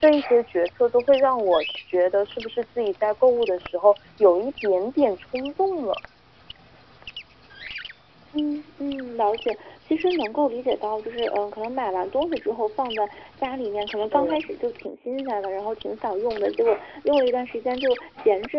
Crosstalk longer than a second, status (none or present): none